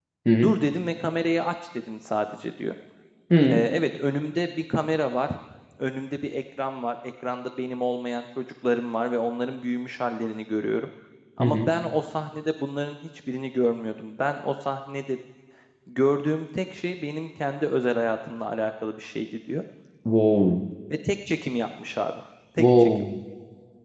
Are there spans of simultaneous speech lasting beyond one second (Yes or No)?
No